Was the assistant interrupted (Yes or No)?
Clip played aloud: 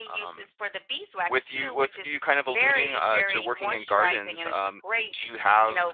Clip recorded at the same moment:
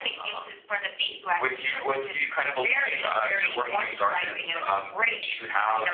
No